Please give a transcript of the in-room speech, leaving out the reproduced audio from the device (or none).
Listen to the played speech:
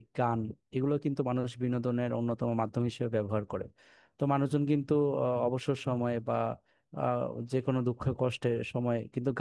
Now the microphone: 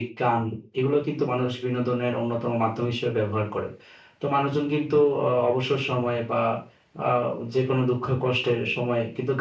none